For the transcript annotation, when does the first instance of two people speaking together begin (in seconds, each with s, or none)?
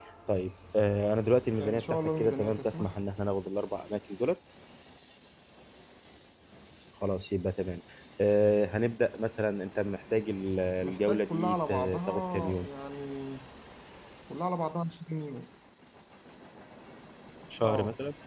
1.6 s